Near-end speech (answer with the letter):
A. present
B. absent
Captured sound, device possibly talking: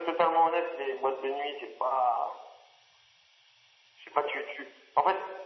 B